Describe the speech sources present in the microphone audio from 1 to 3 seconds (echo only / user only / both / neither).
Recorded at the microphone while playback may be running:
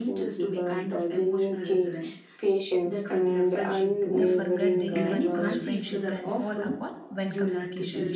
echo only